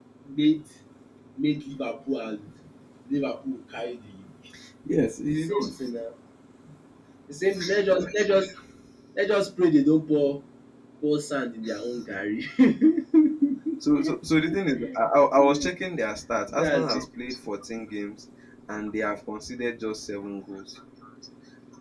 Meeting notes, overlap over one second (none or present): none